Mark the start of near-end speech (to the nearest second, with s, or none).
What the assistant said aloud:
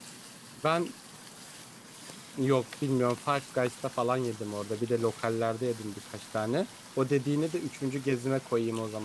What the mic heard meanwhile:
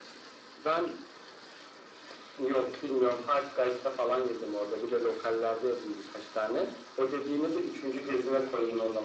none